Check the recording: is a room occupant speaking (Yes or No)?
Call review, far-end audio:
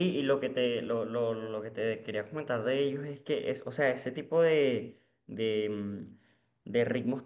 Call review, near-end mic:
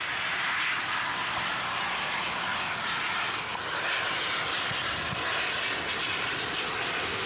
No